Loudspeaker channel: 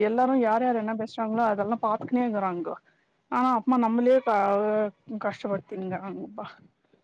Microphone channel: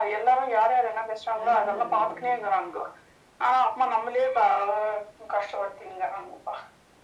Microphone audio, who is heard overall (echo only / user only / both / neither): both